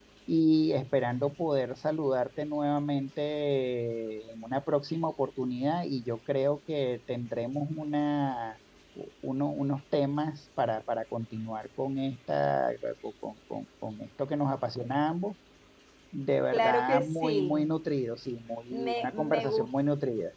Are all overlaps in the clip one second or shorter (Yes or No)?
No